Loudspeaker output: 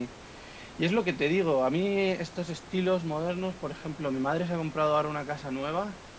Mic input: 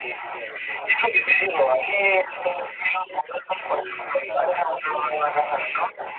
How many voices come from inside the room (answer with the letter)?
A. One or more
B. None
A